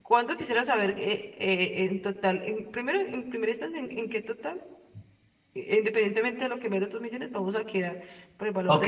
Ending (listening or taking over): taking over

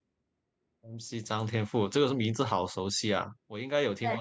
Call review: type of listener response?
taking over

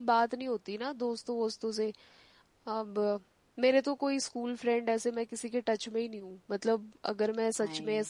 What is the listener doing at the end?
listening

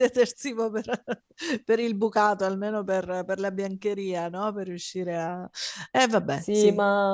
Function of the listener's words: taking over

